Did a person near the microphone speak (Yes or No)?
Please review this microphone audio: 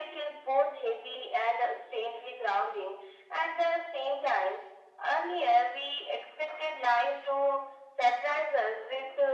No